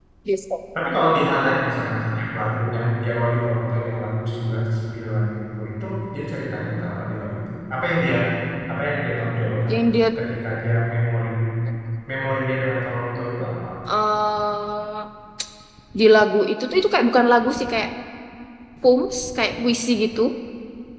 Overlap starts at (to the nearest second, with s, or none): none